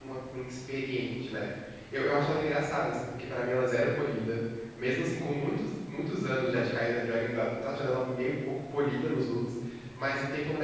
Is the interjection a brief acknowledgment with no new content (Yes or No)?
Yes